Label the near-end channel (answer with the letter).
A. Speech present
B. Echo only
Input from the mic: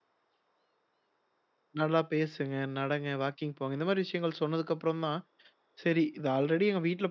A